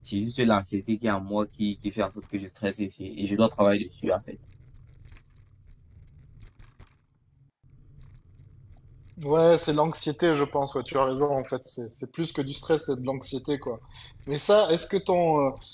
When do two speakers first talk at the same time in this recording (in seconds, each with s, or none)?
none